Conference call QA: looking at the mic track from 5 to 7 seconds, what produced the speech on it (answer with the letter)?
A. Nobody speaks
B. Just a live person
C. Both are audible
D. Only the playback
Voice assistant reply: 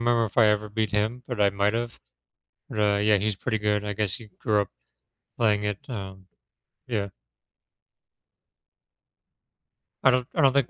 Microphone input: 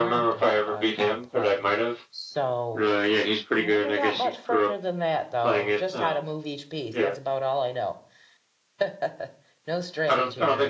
C